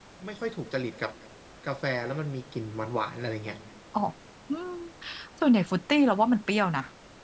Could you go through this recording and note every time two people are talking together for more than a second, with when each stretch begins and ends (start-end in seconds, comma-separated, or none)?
none